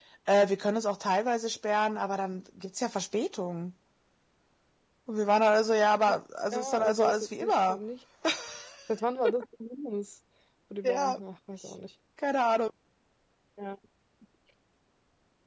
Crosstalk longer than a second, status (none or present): present